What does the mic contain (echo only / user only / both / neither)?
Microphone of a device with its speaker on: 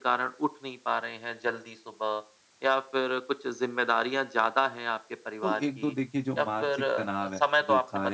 both